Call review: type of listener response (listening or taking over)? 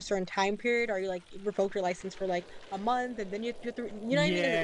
taking over